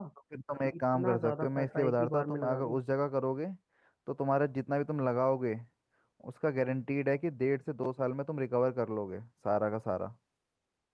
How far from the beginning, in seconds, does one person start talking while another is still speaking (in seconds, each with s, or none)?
0.6 s